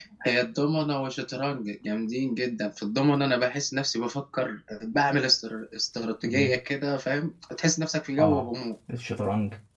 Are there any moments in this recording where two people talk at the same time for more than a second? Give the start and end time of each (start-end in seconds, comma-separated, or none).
none